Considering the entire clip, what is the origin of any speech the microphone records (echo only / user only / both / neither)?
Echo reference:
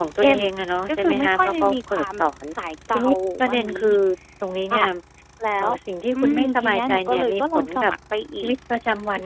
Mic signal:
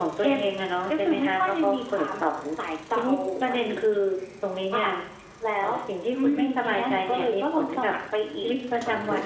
echo only